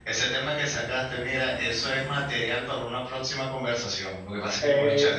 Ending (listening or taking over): listening